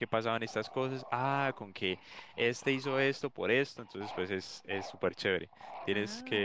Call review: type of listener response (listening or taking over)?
taking over